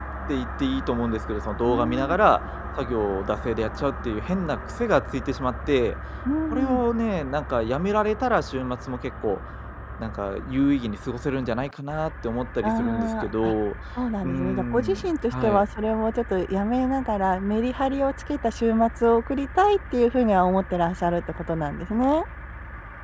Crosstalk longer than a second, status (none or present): present